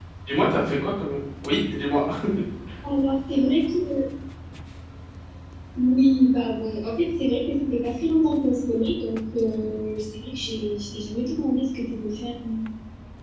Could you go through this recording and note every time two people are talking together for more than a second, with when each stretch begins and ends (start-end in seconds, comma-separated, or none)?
none